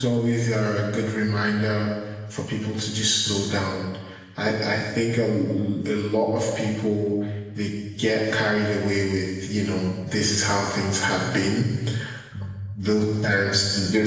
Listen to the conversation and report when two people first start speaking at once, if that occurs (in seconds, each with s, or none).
none